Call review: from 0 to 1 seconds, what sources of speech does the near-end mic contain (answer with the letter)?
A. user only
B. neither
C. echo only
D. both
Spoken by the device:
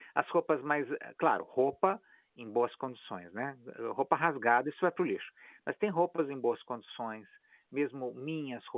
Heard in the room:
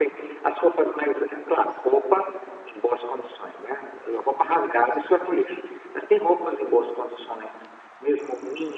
C